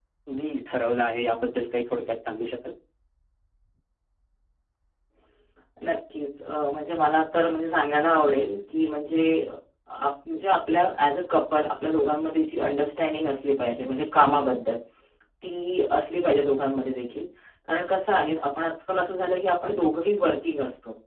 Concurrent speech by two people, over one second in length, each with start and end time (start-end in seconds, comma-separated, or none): none